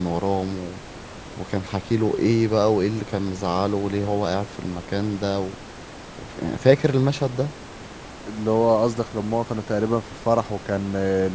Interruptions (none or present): none